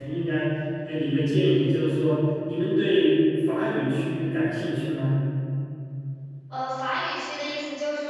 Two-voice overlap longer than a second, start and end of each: none

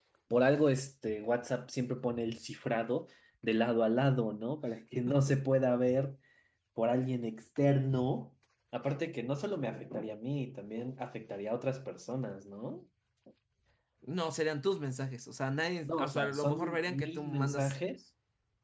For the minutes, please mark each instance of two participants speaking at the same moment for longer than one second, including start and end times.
15.8-17.7

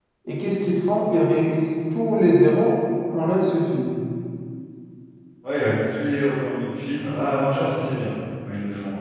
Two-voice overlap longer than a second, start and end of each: none

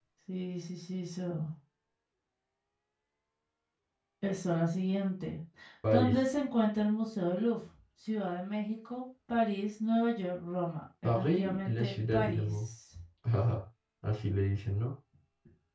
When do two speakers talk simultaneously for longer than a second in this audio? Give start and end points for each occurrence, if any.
11.0-12.5

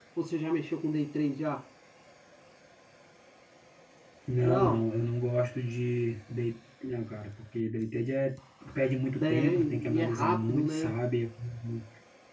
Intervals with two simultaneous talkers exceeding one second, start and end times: 9.2-10.9

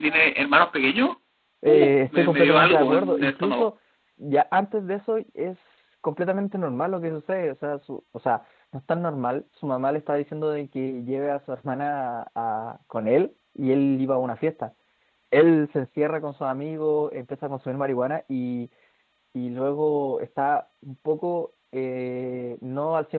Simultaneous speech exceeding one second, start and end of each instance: 1.7-3.7

